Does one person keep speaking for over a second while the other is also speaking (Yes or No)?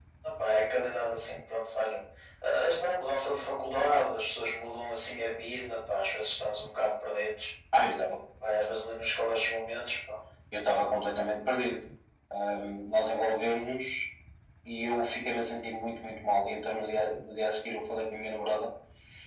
No